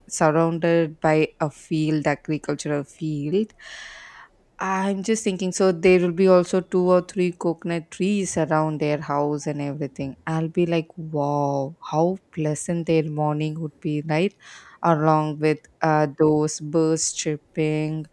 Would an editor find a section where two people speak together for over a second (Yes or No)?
No